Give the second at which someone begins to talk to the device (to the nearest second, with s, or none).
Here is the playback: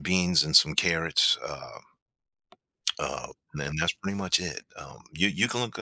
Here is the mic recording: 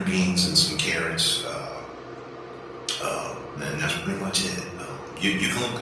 none